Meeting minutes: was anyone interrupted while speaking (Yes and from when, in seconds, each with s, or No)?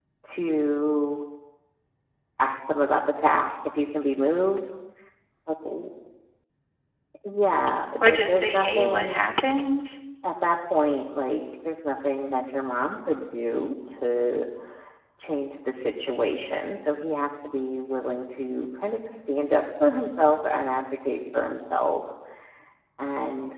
Yes, from 8.0 s